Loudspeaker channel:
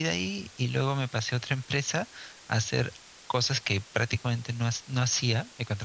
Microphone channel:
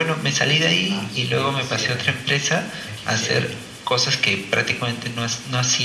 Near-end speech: present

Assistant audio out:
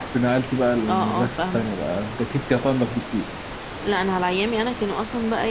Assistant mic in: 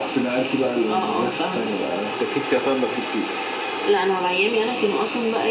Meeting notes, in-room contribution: none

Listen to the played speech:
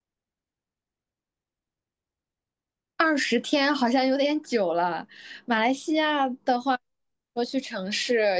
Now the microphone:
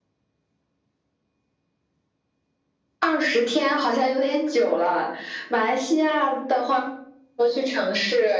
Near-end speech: none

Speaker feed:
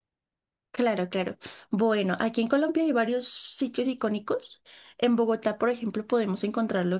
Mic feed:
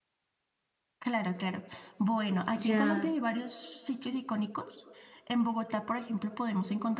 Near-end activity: present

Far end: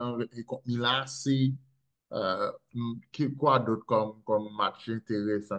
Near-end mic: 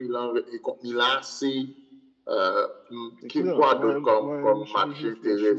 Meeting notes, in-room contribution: present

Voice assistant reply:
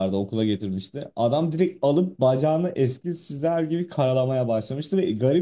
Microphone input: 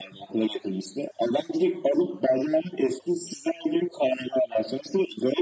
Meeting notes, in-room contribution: none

